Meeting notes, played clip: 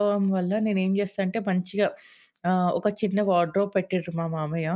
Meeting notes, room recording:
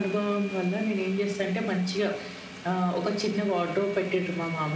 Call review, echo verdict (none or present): present